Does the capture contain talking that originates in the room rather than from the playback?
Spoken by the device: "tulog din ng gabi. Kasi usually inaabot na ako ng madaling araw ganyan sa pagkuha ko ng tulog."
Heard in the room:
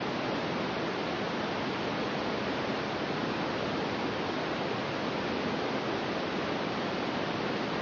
No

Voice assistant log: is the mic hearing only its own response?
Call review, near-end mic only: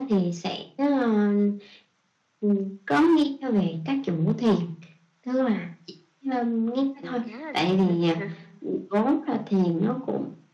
No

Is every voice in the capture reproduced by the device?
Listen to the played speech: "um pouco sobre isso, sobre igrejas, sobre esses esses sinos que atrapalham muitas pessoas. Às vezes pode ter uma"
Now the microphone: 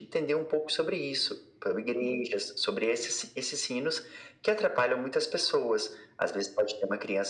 Yes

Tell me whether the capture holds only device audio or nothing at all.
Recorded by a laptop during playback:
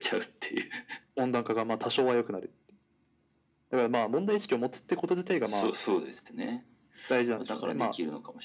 Yes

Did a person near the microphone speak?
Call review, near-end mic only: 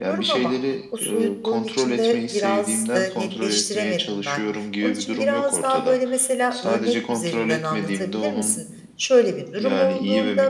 Yes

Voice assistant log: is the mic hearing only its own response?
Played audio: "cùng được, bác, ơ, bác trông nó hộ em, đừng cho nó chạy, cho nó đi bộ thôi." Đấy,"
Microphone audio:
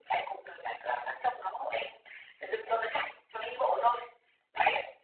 Yes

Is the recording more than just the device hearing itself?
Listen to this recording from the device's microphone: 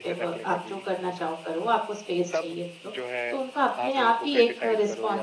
Yes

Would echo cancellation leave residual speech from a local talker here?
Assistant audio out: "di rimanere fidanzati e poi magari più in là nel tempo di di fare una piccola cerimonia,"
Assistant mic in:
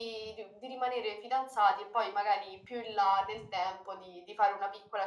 No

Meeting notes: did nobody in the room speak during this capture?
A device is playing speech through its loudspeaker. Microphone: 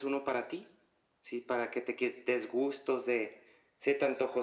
Yes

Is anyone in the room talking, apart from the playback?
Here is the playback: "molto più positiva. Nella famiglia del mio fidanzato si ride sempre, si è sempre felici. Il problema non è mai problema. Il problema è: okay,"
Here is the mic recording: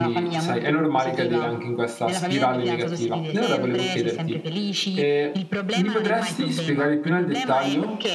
Yes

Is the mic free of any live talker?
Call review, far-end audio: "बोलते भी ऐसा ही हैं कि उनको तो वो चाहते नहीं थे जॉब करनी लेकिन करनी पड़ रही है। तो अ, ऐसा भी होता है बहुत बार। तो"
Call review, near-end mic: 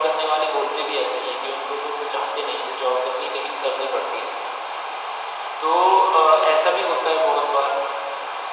Yes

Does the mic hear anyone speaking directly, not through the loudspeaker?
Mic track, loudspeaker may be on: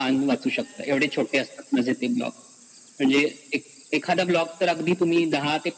No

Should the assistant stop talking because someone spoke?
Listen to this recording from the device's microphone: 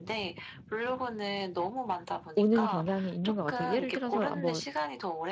Yes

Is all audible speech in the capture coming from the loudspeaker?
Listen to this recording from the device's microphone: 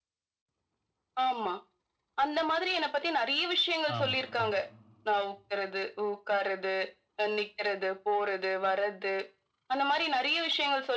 No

